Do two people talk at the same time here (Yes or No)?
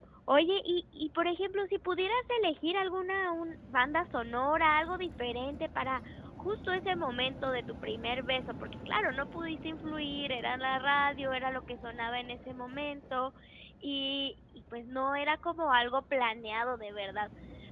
No